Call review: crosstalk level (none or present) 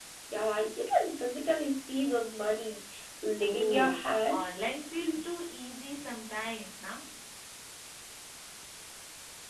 present